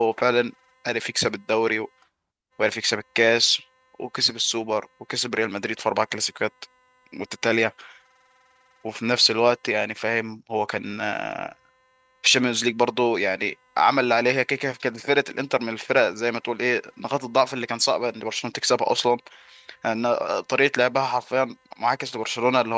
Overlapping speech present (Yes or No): No